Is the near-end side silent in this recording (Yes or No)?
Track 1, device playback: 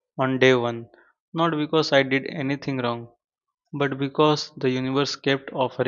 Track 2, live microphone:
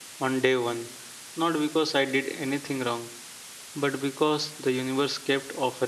Yes